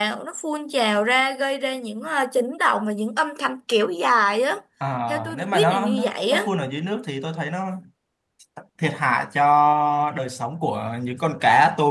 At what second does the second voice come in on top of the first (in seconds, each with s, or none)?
5.1 s